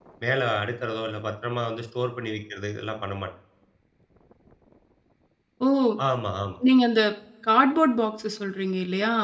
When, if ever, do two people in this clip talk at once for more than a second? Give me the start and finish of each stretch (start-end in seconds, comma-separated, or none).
none